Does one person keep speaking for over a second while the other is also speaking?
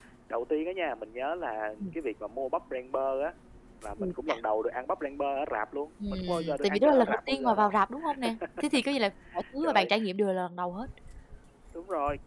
Yes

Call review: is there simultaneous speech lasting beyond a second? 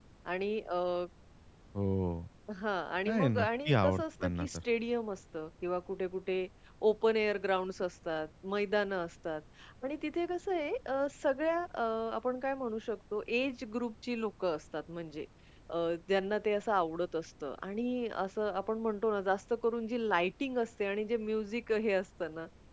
Yes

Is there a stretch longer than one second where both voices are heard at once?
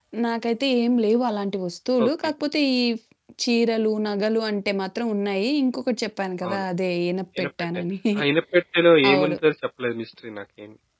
No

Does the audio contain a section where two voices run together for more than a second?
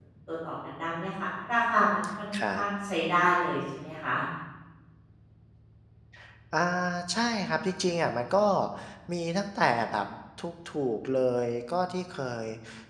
No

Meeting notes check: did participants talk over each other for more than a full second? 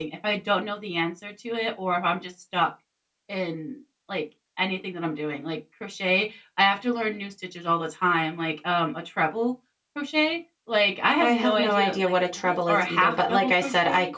Yes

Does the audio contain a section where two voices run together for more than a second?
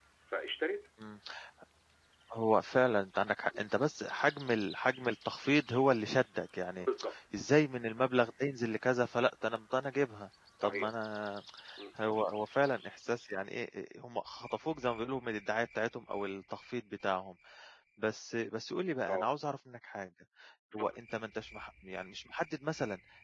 No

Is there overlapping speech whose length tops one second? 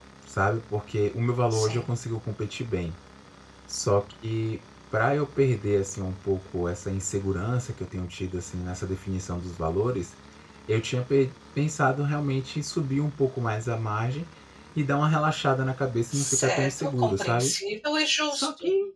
Yes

